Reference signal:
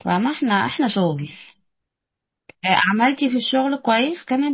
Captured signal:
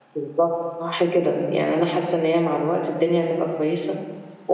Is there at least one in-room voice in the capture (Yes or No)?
Yes